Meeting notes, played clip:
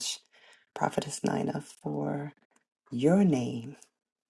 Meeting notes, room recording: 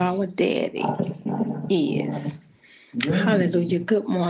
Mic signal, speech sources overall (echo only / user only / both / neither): both